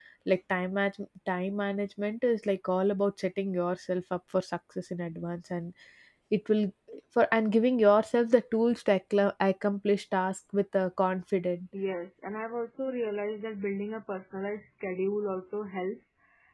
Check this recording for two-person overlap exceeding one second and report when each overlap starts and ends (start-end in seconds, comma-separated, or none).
none